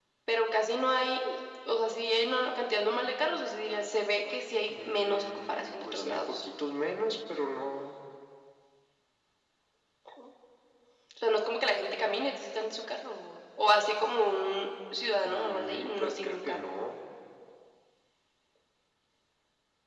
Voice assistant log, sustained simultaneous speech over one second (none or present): present